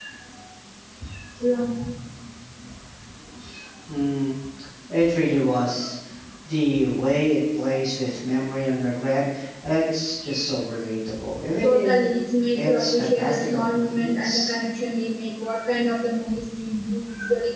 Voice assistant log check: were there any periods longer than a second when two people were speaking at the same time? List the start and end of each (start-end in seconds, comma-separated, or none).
12.6-14.5